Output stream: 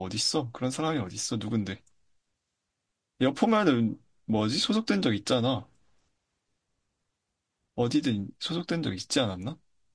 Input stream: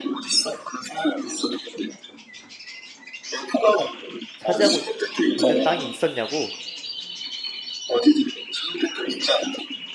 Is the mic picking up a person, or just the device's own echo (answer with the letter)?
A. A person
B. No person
A